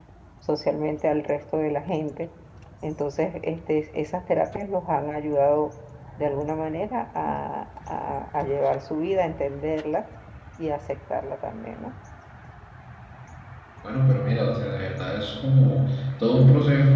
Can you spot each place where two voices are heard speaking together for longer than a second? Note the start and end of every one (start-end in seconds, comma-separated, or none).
none